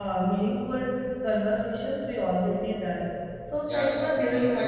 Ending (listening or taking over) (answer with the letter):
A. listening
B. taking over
B